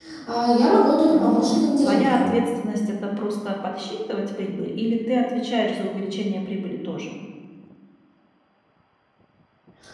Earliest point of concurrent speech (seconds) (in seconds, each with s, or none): 1.1 s